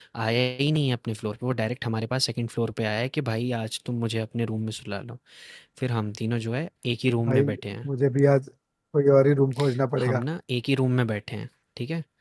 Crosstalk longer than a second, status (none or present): none